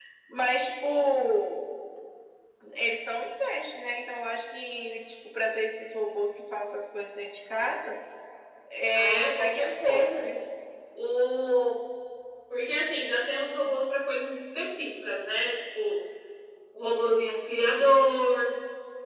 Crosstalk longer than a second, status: present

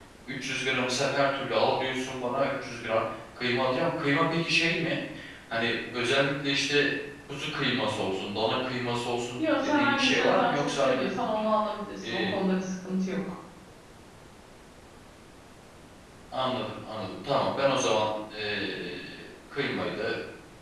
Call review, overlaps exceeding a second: present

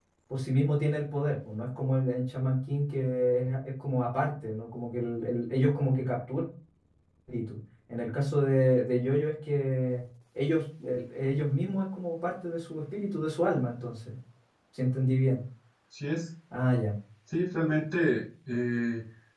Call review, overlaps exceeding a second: none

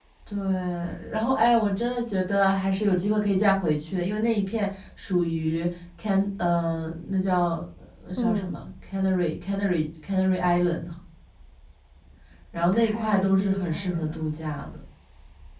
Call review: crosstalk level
present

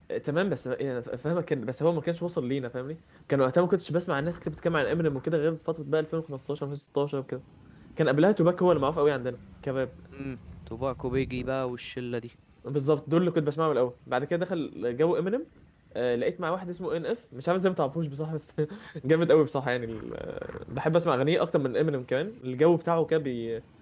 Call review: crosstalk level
none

